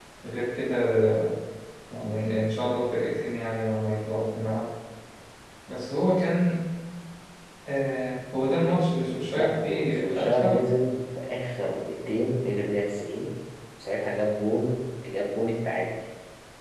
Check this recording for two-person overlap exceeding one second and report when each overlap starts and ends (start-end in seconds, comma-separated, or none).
9.3-10.7